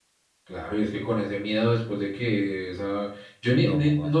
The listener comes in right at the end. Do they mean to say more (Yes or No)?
No